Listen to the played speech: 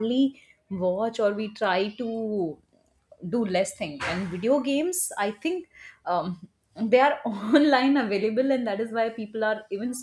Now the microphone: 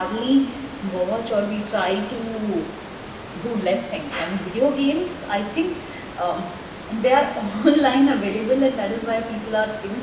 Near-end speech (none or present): none